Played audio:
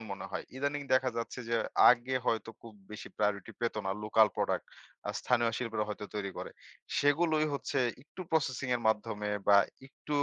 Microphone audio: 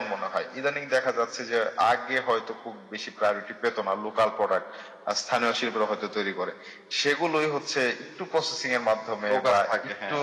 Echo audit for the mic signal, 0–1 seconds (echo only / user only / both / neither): echo only